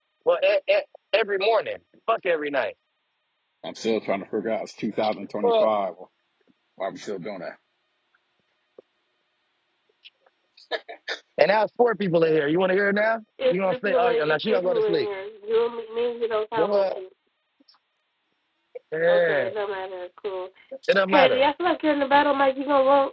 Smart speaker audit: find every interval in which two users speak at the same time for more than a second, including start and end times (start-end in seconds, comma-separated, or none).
13.4-15.1